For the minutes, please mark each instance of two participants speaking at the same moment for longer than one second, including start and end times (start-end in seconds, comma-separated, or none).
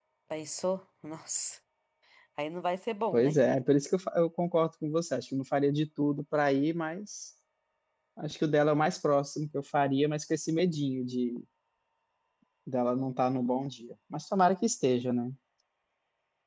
none